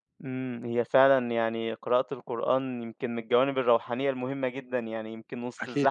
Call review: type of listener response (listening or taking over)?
listening